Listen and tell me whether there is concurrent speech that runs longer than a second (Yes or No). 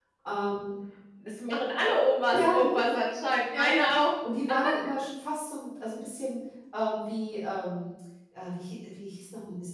No